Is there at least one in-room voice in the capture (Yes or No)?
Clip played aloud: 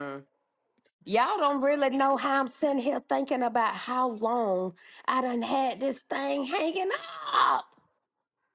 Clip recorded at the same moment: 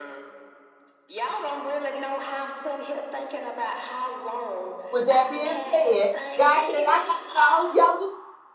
Yes